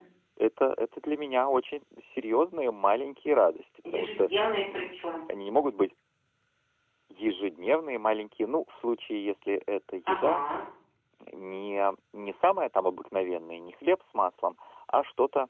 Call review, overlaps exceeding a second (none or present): none